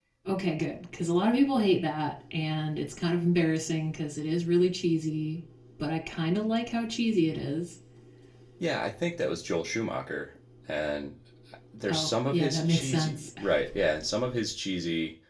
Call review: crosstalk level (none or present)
present